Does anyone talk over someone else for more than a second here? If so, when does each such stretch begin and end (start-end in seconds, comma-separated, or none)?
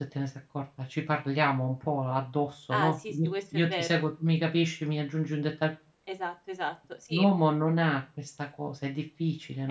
2.7-4.0